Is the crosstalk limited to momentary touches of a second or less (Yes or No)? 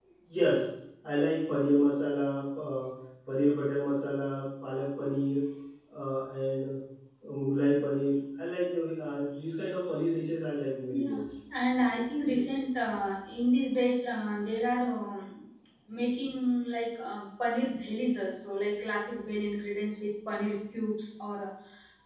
Yes